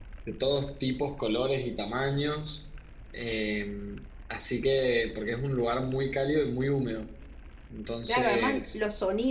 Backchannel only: No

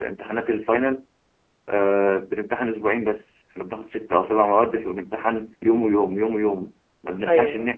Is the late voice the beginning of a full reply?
No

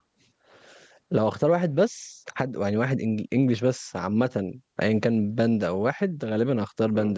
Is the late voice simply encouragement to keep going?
Yes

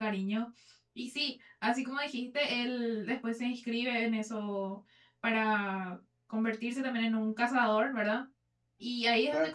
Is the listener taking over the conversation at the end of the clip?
No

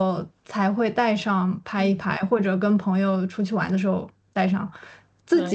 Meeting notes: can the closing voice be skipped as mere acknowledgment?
Yes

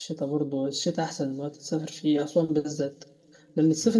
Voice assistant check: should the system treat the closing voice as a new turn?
No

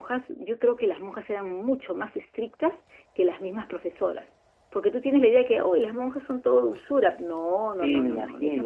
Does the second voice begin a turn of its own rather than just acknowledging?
Yes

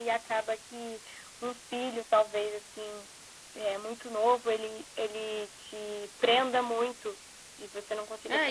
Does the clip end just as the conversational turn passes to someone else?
Yes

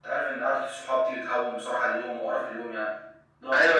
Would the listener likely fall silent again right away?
No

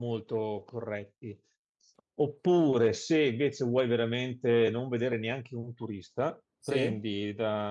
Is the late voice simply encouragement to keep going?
Yes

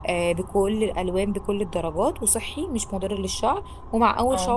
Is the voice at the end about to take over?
No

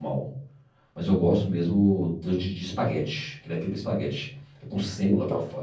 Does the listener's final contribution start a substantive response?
No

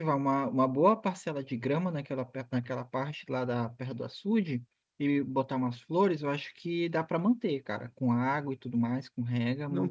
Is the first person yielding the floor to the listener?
Yes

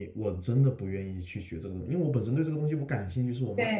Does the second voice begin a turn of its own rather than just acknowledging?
Yes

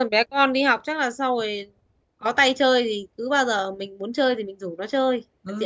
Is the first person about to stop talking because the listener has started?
Yes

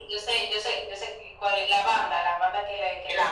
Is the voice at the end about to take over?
Yes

